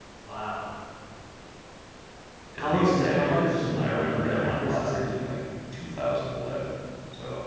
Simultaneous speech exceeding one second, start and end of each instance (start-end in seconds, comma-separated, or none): 2.6-5.2